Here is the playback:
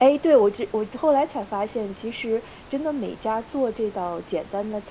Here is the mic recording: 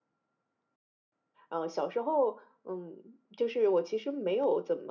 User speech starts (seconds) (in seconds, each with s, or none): 1.5 s